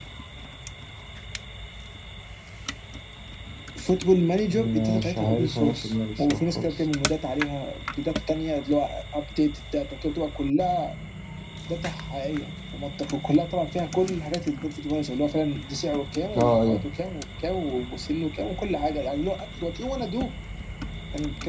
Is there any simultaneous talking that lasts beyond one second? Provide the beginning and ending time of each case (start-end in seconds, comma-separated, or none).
4.5-6.8